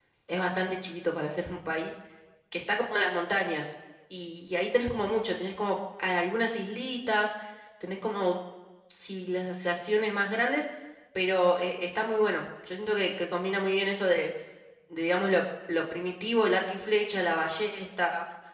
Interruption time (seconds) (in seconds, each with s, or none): none